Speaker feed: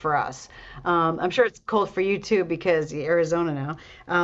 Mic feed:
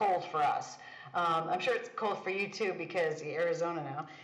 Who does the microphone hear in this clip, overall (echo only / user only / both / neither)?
echo only